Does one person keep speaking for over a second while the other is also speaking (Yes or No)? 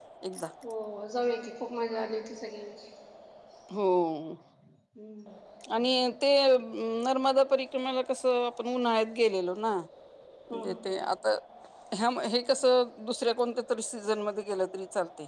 No